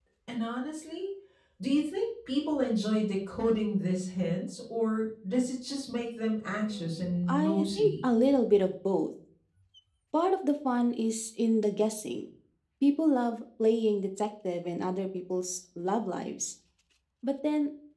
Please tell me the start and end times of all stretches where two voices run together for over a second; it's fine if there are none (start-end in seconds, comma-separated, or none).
6.7-8.0